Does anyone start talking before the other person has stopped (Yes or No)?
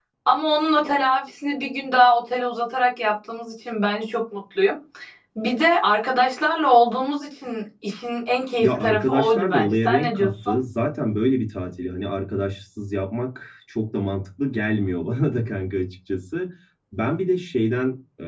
Yes